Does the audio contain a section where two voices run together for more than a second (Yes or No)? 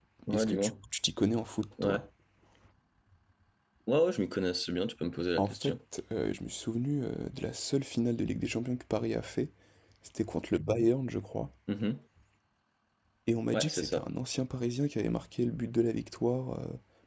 No